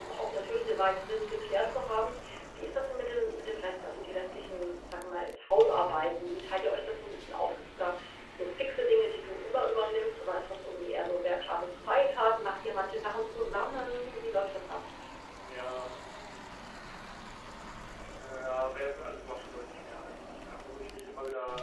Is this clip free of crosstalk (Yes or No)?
Yes